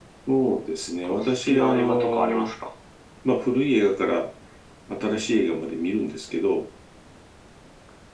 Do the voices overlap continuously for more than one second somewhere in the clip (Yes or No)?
Yes